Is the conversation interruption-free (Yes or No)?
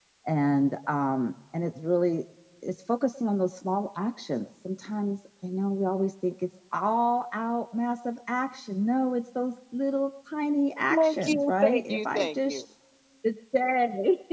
No